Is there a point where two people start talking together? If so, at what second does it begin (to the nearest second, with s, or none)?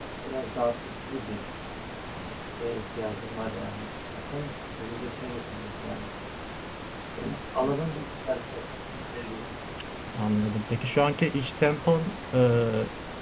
none